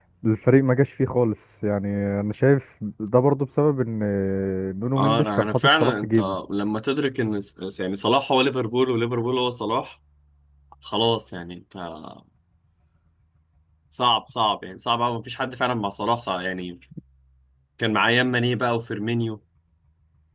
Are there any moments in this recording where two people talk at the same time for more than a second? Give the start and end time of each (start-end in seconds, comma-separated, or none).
5.0-6.4